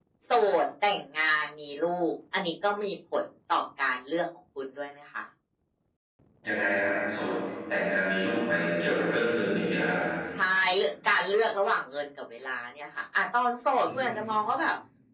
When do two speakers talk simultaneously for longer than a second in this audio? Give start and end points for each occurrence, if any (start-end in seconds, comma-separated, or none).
none